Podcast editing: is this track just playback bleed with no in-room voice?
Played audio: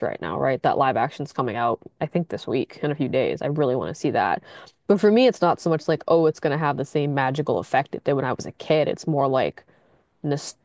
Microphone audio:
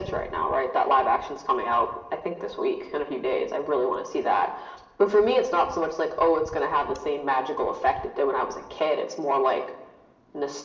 Yes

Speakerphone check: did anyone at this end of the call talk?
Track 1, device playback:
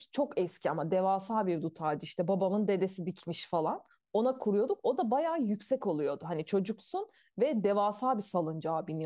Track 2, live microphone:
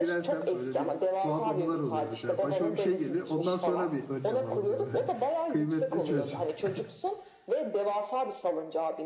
Yes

